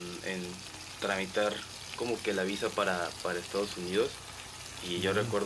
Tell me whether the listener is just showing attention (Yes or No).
Yes